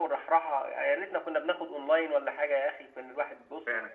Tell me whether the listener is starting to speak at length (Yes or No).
No